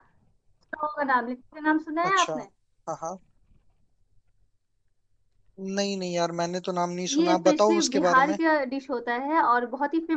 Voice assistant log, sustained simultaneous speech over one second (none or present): present